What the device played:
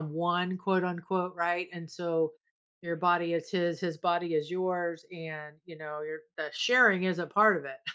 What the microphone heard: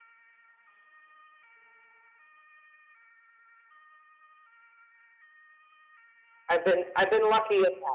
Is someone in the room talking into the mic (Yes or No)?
Yes